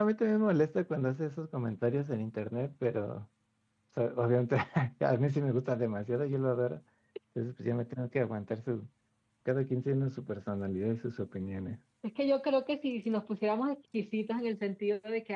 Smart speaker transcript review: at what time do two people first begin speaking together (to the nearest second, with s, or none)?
none